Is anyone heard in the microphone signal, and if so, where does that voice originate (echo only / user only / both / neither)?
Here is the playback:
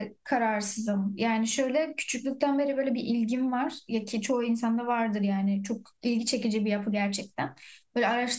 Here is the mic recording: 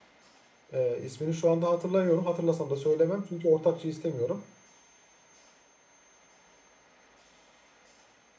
user only